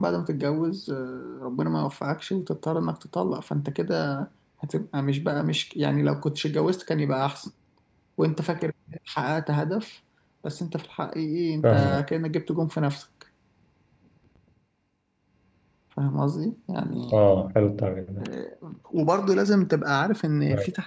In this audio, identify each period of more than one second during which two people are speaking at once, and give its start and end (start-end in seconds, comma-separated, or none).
none